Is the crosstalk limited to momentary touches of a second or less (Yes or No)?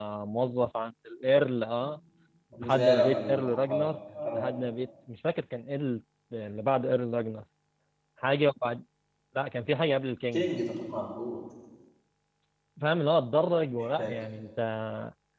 No